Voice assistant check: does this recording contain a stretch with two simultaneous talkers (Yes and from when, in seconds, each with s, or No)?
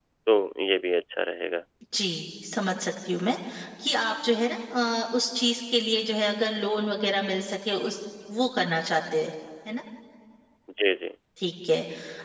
No